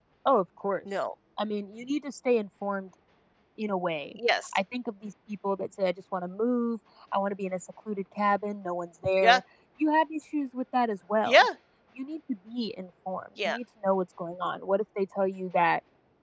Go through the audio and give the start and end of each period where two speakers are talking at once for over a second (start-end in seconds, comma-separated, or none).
none